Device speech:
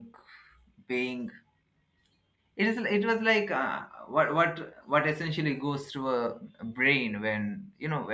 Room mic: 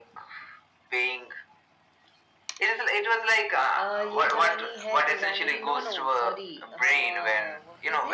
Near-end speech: present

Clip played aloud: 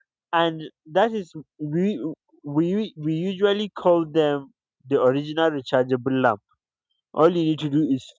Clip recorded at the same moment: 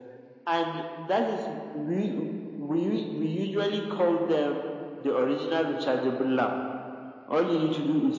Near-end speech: none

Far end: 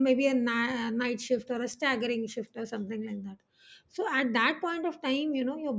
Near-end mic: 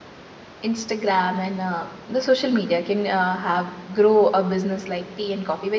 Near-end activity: present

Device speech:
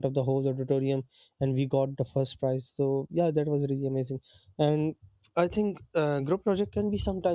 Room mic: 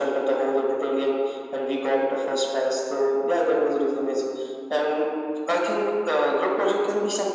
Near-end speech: none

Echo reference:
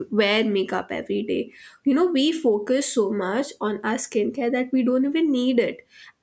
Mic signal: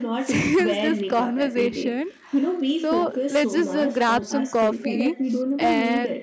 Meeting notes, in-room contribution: present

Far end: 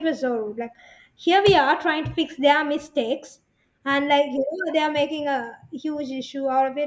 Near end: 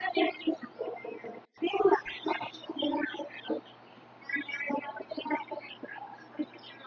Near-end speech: none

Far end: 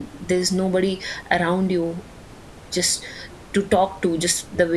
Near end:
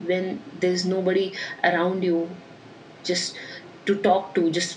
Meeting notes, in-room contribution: none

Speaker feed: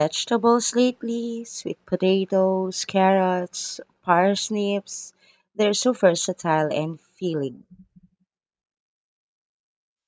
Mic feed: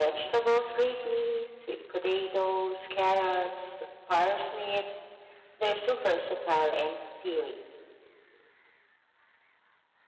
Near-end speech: none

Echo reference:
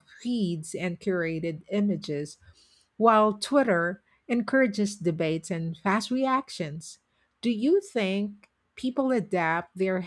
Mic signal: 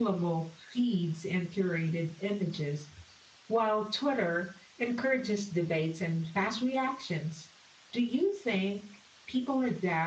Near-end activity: none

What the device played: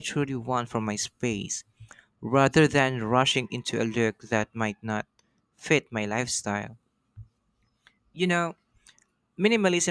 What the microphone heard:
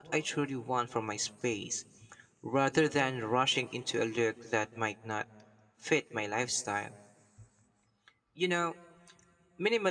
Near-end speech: none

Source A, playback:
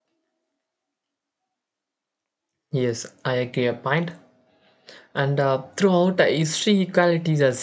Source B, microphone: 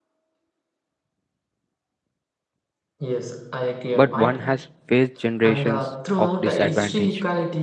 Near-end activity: present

